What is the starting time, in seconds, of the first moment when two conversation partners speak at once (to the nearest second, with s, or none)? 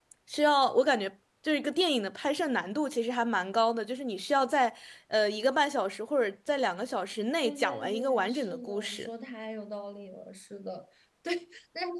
7 s